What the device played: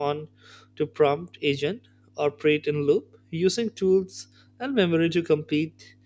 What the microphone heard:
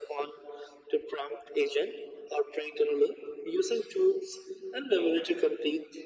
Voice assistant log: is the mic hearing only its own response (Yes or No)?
Yes